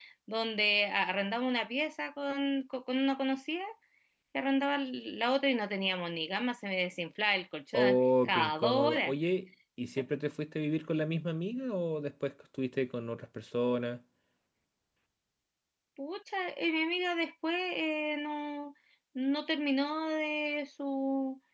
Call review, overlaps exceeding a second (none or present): present